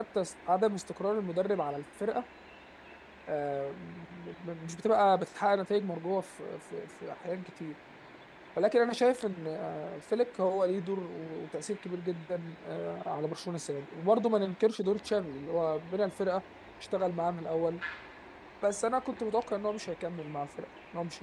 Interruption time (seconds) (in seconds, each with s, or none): none